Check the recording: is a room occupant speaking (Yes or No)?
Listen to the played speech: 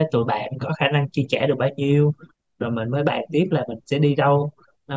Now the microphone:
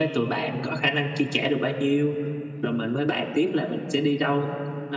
No